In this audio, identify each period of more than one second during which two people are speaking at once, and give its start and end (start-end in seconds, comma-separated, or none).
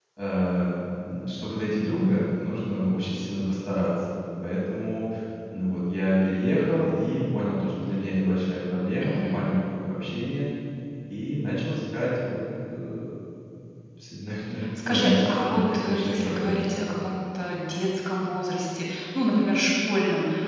14.8-16.6